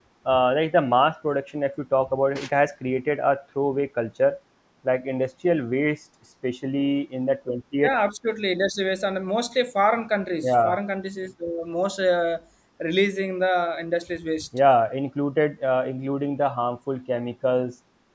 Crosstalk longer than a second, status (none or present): none